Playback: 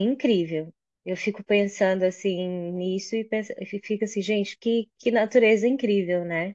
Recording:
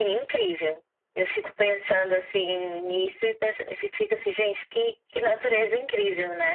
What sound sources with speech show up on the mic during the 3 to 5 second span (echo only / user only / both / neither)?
echo only